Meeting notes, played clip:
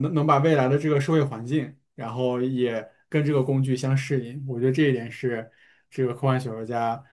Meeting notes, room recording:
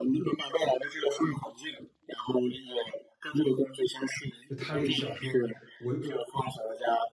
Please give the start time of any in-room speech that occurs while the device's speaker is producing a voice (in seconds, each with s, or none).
4.4 s